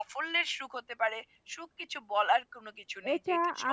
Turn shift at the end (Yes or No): Yes